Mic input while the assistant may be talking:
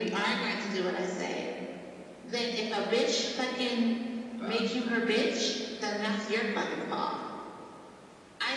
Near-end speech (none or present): present